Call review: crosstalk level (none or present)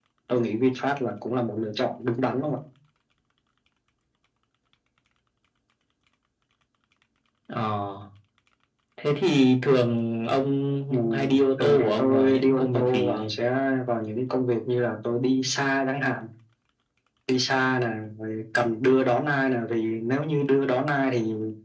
present